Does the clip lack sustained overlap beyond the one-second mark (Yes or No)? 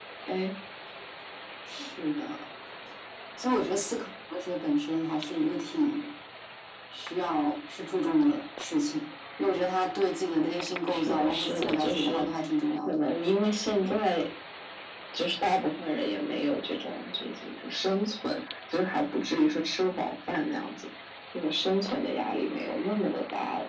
No